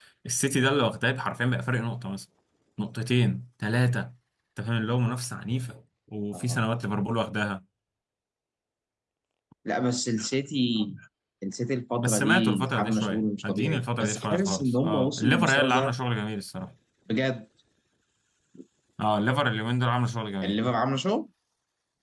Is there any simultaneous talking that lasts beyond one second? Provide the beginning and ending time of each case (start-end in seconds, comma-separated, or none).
12.0-16.0